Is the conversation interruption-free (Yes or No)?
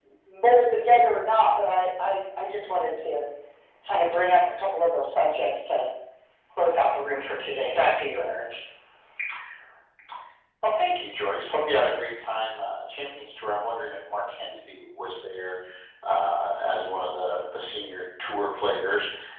Yes